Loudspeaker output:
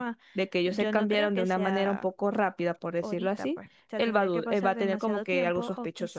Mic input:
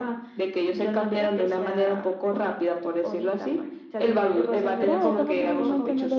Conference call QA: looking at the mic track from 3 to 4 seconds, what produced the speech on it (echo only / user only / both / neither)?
echo only